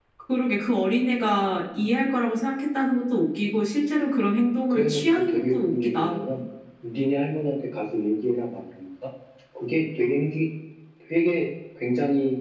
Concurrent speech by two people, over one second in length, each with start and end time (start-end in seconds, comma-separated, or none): 4.7-6.2